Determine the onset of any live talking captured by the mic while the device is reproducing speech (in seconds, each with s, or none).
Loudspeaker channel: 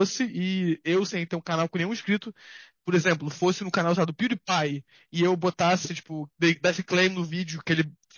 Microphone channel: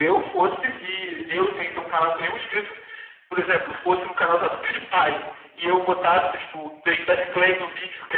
none